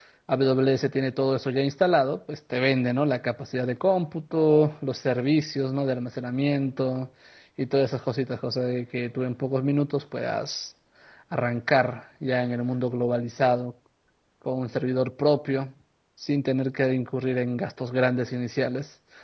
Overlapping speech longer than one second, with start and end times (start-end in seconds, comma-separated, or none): none